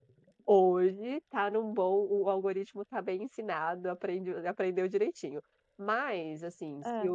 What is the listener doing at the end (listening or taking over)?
listening